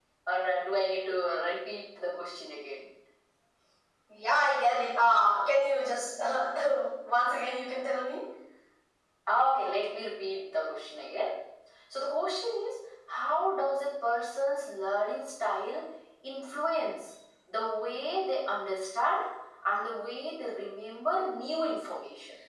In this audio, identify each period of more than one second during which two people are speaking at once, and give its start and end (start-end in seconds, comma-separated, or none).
none